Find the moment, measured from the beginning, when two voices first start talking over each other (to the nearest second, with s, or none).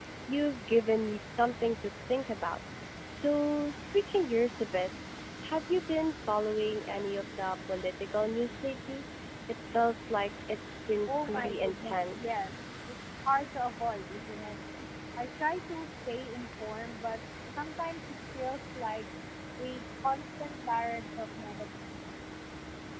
11 s